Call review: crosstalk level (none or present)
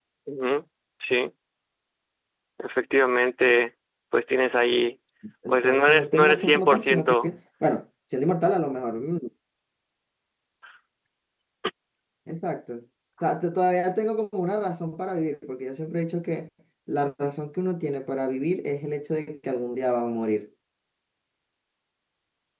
present